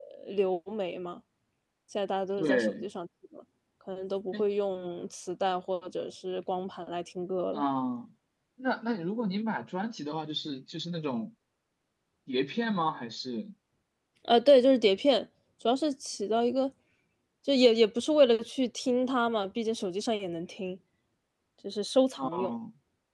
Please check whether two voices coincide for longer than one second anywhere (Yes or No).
No